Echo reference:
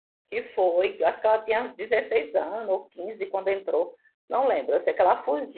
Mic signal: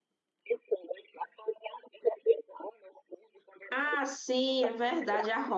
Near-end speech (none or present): present